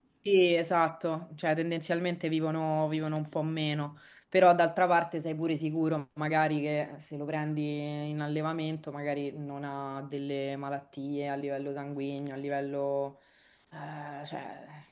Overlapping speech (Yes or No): No